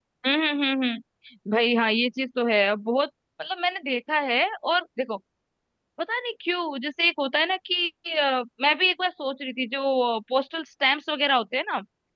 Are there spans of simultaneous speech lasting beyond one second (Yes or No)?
No